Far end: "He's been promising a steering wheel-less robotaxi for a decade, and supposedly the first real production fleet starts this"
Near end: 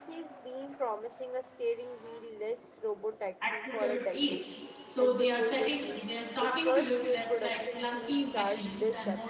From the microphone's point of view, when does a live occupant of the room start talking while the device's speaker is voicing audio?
3.4 s

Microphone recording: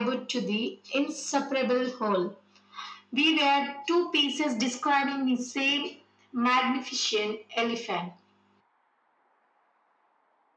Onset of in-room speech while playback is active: none

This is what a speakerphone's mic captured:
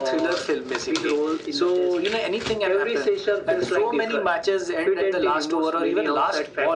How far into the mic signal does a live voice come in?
none

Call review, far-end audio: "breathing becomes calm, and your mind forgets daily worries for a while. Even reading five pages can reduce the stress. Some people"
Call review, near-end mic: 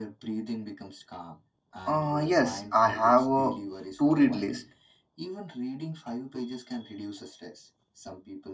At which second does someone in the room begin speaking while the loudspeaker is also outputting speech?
1.9 s

